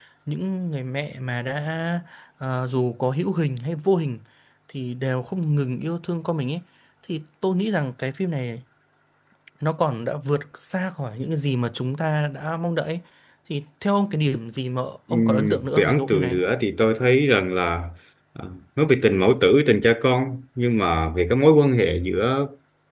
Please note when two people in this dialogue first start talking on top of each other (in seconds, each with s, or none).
15.1 s